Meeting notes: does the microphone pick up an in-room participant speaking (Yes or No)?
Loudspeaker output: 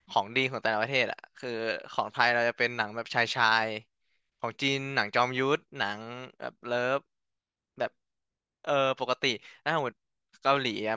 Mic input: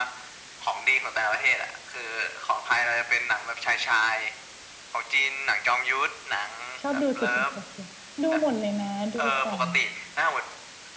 Yes